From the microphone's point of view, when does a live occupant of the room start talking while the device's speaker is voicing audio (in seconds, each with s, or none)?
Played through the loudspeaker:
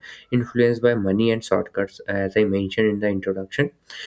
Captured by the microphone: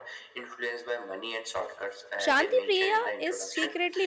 2.2 s